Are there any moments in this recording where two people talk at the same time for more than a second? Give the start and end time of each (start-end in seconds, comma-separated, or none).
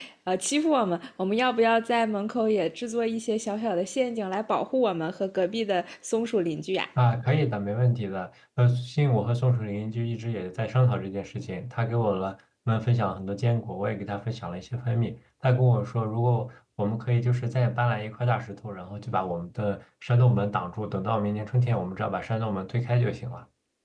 none